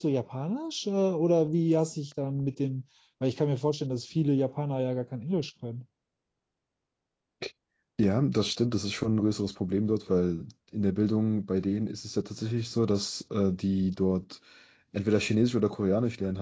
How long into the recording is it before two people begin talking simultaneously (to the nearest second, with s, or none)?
none